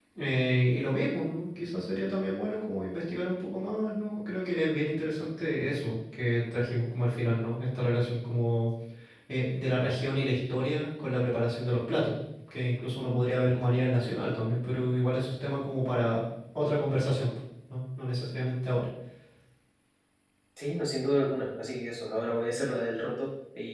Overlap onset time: none

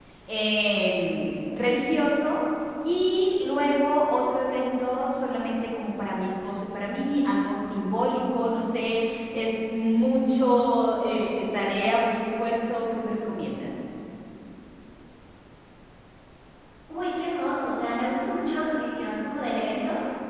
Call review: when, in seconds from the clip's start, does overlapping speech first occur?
none

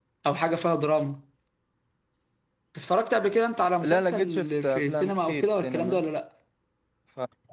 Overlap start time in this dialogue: 3.8 s

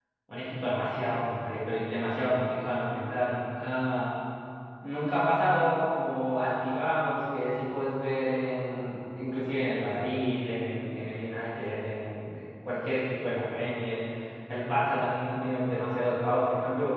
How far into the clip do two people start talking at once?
none

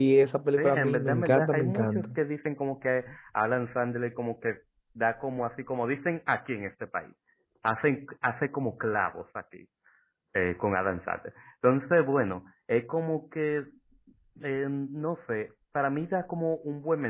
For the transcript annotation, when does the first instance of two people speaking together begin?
0.6 s

